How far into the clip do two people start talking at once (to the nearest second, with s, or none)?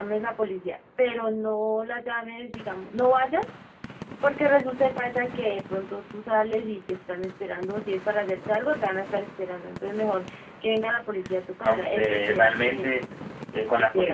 12 s